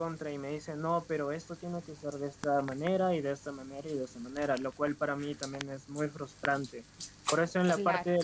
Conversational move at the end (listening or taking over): listening